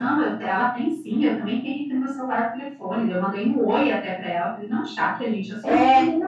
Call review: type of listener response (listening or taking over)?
taking over